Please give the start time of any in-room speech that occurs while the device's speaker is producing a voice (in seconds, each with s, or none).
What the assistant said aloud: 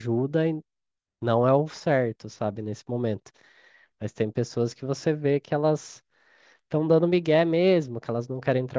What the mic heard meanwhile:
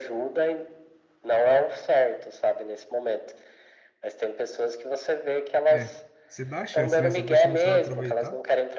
5.7 s